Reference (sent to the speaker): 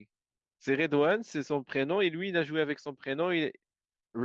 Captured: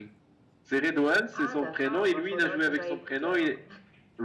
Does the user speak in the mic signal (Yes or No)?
Yes